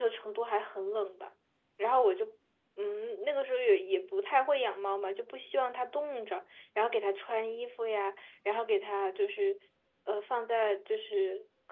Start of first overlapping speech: none

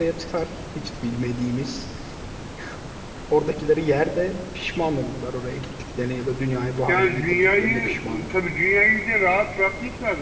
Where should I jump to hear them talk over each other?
7 s

